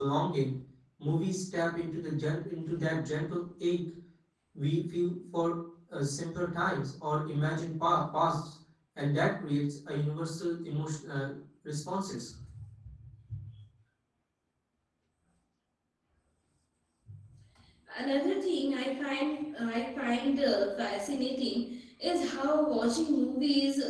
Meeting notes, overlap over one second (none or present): none